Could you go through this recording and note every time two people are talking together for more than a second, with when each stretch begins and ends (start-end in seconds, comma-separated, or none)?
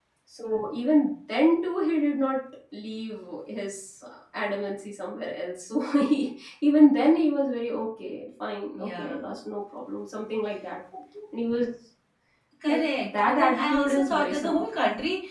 12.6-14.6